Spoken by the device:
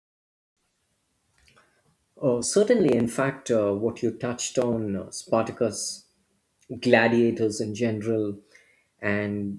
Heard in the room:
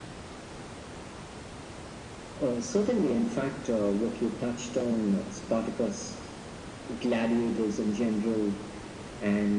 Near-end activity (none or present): none